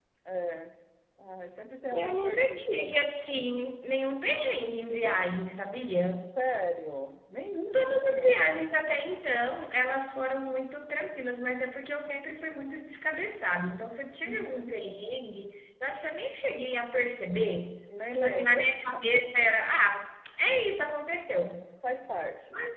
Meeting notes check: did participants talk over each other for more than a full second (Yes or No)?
Yes